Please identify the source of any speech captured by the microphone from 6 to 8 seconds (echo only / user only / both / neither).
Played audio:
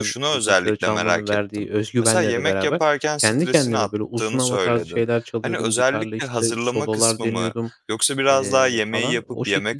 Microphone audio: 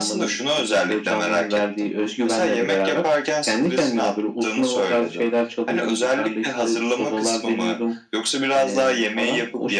echo only